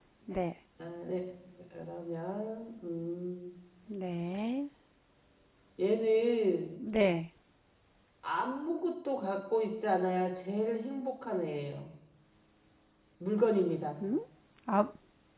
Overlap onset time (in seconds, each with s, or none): none